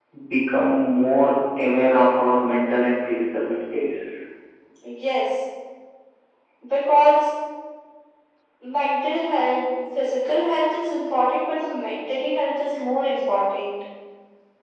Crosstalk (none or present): none